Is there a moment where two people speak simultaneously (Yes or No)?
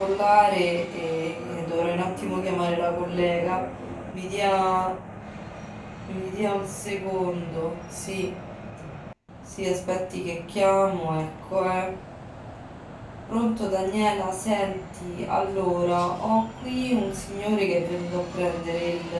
Yes